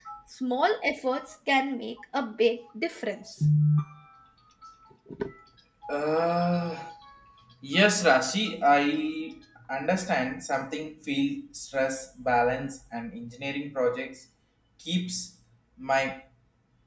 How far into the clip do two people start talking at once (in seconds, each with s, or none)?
none